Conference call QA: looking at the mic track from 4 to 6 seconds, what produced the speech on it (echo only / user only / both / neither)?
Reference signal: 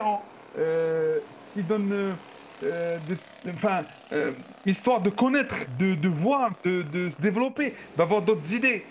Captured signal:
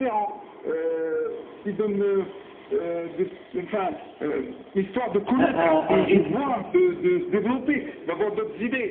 both